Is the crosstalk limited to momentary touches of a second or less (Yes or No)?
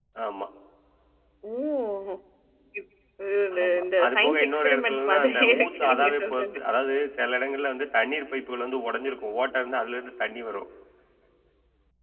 No